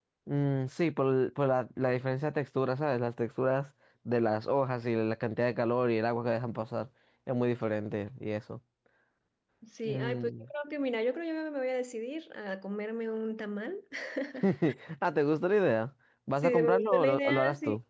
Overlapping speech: Yes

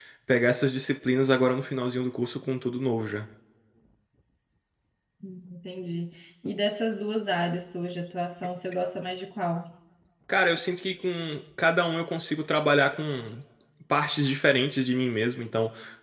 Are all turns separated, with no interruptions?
Yes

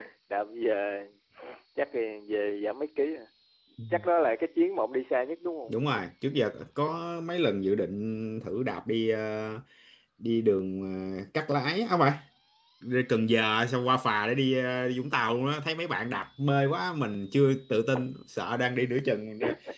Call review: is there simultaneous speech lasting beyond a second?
No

